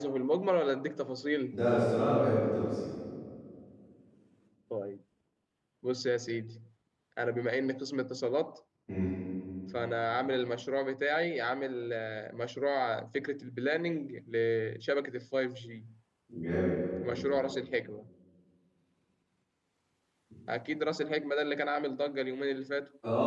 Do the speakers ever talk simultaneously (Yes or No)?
No